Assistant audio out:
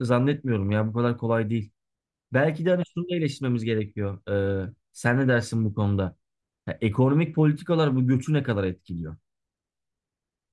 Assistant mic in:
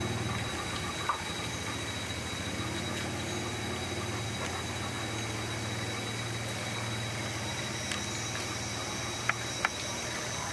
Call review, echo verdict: none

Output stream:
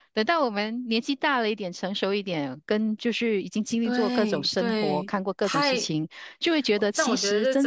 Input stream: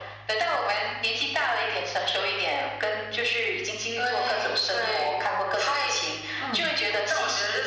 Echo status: present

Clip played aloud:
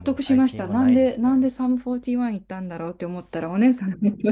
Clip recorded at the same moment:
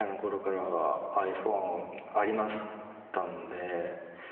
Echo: none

